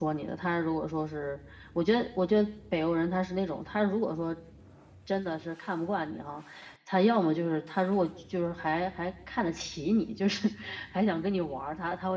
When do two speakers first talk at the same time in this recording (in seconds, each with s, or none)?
none